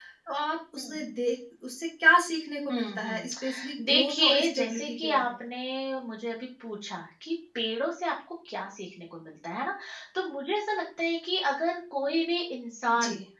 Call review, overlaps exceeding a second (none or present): present